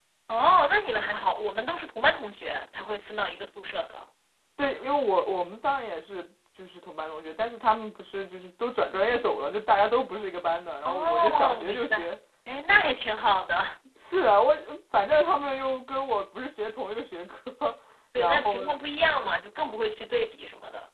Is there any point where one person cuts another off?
Yes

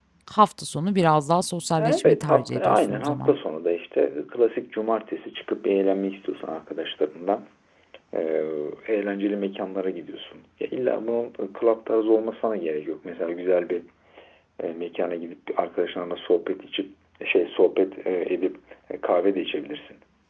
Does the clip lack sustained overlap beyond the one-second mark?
No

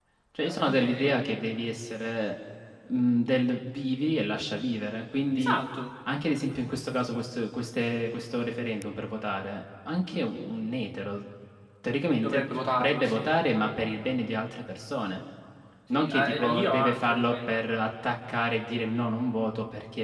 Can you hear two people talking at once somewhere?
Yes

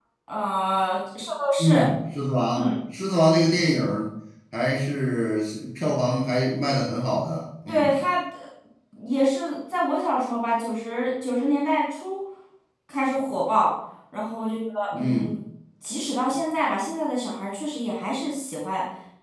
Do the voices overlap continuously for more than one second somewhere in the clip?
No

